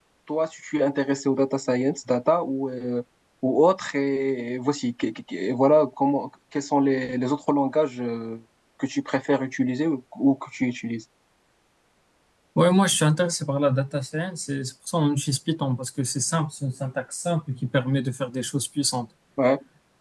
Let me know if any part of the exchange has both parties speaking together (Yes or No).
No